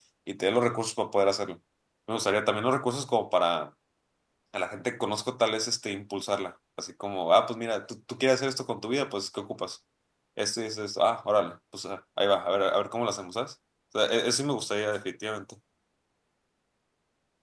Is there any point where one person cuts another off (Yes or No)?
No